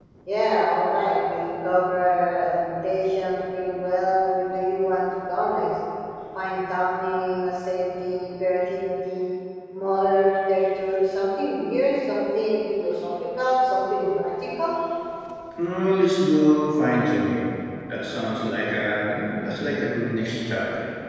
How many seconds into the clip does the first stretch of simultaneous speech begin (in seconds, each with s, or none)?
none